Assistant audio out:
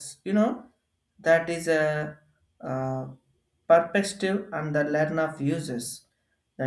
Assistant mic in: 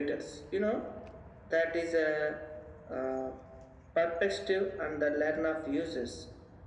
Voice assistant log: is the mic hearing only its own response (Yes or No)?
Yes